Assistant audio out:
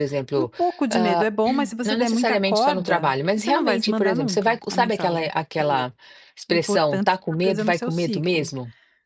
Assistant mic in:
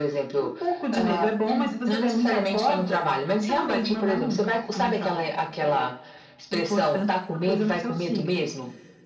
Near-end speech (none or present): none